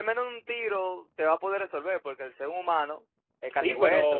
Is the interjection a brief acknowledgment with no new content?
No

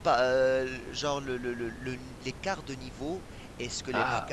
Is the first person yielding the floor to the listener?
No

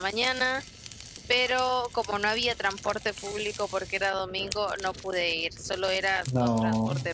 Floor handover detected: No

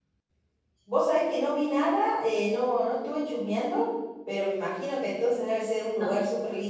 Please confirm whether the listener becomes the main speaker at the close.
No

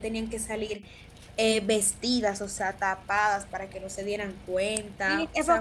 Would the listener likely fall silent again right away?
No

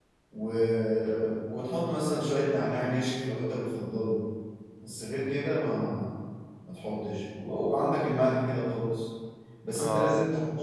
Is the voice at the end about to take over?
No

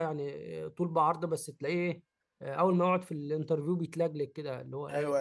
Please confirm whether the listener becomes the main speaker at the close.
Yes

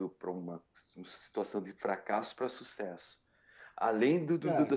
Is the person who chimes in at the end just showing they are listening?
No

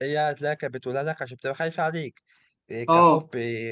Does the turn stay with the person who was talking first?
Yes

